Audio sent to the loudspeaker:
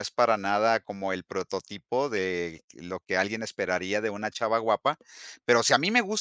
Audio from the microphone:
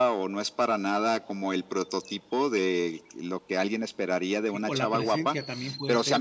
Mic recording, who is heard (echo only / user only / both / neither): both